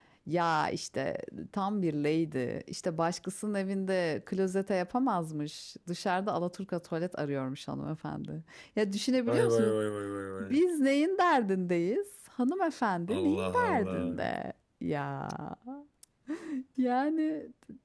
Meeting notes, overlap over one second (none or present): present